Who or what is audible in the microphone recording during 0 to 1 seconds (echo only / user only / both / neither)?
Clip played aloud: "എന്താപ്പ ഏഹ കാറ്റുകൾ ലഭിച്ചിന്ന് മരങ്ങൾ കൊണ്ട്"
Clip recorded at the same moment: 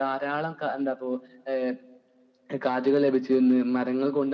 echo only